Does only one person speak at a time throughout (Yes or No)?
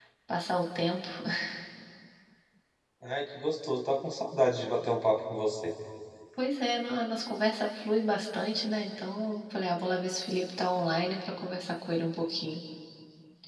Yes